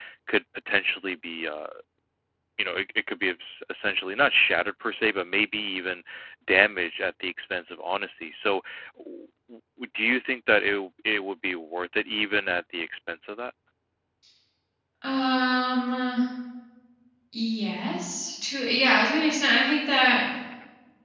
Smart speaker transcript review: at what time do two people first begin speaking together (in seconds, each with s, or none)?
none